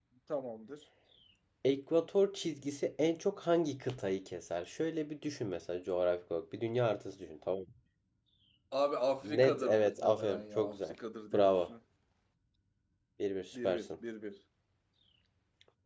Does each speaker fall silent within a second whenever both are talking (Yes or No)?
No